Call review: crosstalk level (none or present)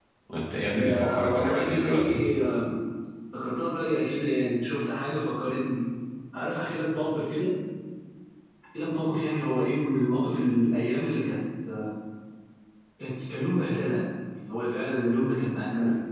present